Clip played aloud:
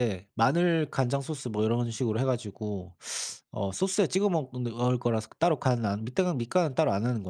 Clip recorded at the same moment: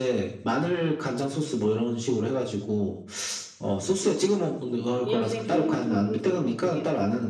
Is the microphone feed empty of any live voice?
No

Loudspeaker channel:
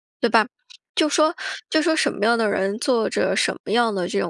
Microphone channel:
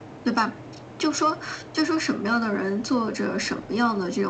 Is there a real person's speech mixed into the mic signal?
No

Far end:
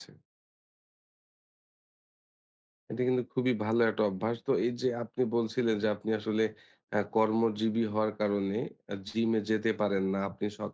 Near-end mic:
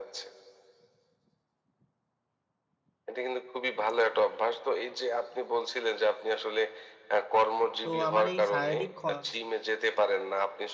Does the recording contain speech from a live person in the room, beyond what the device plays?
Yes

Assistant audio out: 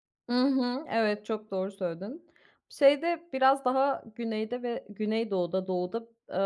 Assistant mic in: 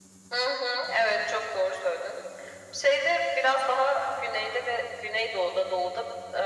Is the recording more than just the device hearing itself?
No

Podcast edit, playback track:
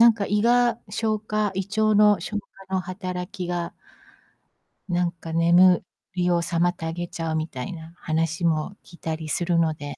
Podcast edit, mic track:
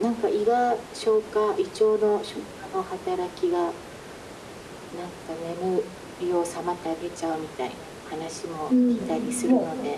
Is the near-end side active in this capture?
Yes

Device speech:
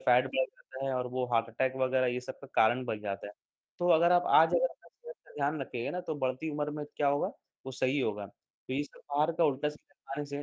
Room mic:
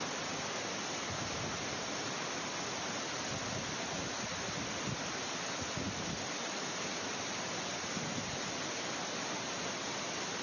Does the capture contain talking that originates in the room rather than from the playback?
No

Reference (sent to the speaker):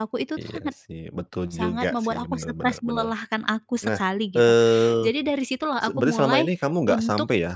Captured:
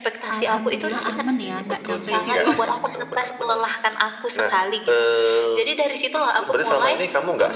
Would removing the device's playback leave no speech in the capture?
No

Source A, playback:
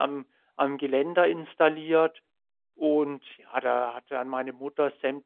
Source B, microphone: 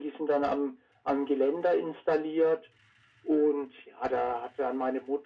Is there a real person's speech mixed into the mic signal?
No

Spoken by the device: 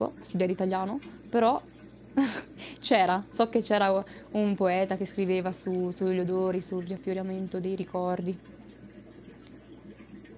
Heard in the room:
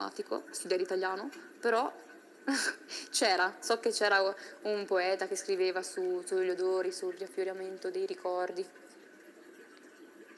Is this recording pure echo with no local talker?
Yes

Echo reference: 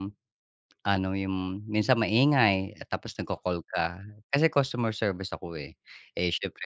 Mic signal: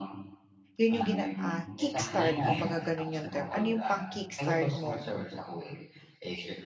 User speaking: Yes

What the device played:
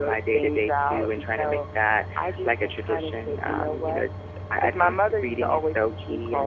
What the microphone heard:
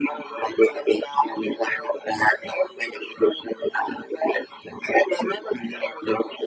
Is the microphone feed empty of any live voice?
Yes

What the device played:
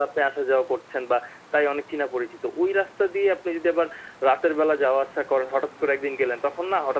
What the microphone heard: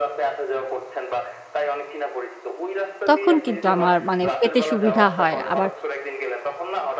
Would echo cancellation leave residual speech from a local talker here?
Yes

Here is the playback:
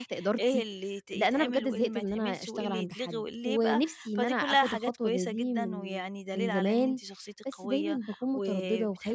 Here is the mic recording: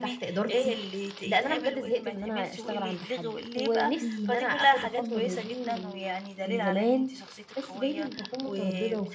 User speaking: Yes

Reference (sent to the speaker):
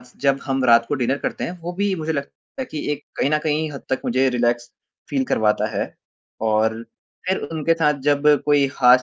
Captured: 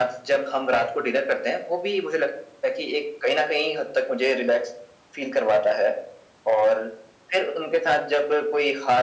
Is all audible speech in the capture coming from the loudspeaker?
Yes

